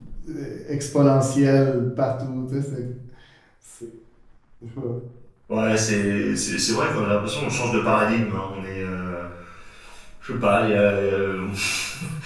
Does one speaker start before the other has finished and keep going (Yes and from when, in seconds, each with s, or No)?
No